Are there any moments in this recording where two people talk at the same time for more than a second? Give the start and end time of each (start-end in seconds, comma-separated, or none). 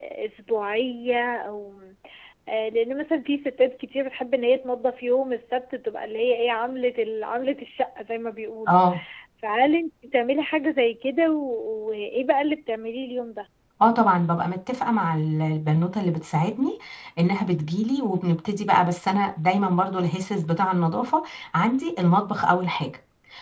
none